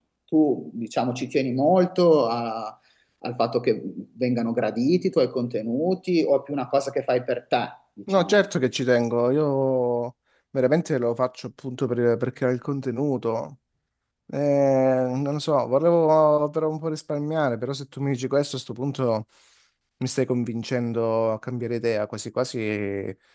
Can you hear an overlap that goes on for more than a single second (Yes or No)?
No